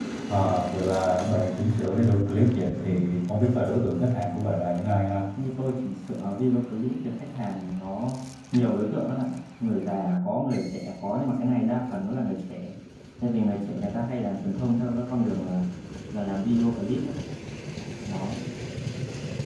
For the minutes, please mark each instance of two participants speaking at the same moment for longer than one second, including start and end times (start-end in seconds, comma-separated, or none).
none